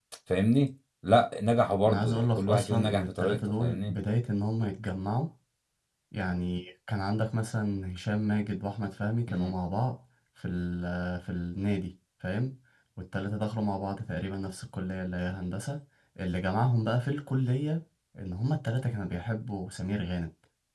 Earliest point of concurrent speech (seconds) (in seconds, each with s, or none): 1.9 s